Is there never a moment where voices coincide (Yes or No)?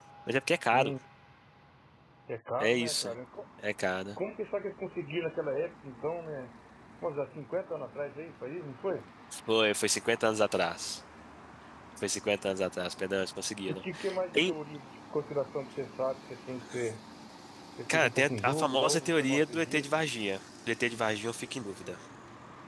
No